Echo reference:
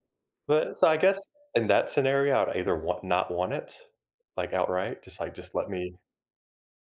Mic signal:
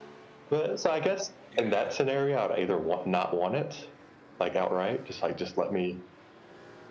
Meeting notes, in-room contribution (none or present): present